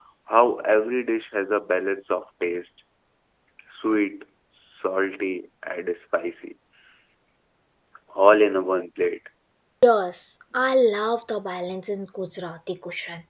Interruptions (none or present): none